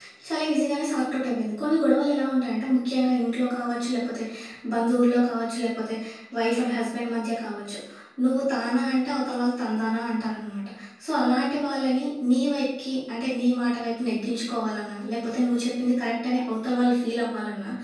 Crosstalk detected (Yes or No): No